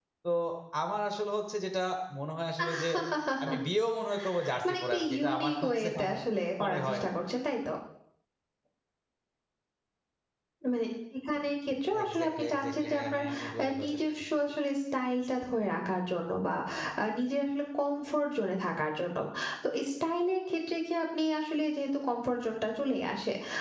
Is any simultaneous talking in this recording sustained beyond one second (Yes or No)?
Yes